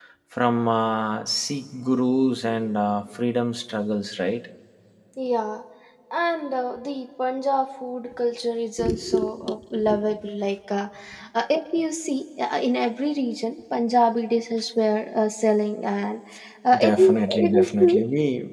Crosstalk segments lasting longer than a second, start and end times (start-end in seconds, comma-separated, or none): 16.8-18.0